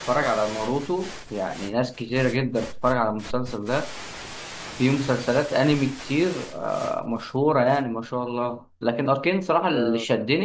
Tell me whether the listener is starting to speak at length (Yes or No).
No